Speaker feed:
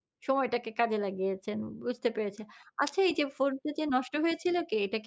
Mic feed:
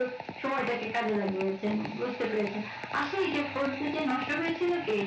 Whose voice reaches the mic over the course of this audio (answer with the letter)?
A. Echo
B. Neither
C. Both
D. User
A